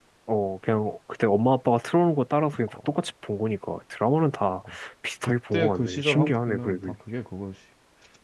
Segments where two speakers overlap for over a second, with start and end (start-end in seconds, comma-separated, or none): 5.2-6.9